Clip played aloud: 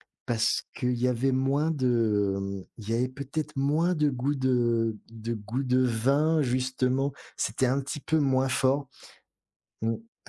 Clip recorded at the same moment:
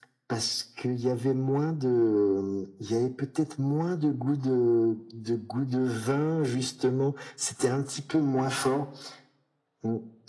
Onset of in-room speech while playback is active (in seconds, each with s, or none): none